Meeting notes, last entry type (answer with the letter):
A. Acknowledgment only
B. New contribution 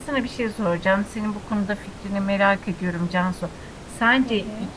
A